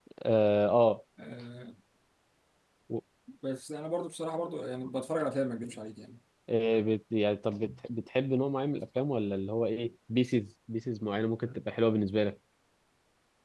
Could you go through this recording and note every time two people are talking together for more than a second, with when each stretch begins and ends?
none

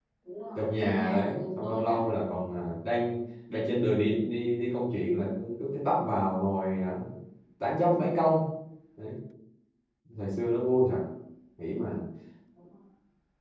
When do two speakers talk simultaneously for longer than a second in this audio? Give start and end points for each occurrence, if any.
0.6-2.0

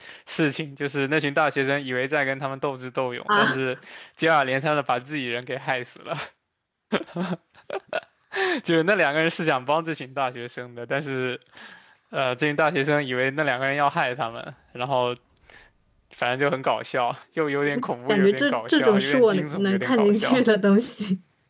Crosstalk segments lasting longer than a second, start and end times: 18.1-20.4

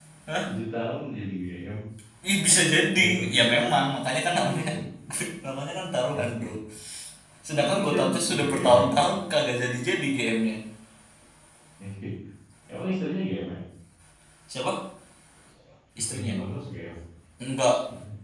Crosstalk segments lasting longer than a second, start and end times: 7.6-8.9

